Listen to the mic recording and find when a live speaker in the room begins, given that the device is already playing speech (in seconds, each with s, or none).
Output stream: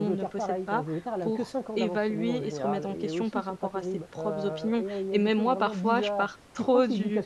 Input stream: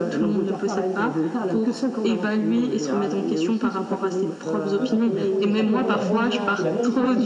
4.7 s